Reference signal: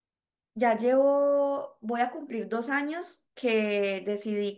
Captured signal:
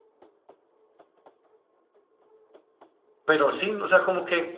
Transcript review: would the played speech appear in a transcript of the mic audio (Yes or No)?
No